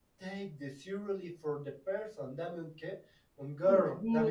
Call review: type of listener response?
taking over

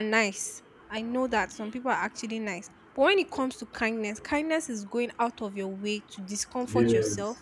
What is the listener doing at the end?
listening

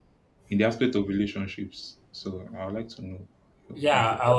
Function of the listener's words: taking over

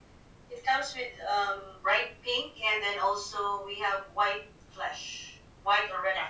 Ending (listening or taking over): taking over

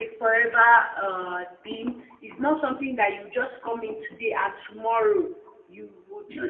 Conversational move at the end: taking over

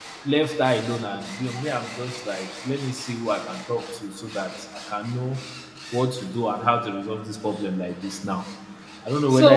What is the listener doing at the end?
taking over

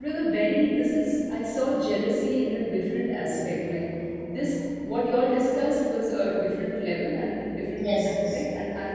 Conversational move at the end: listening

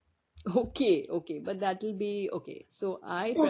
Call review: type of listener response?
taking over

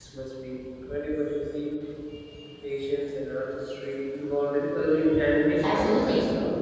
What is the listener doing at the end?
taking over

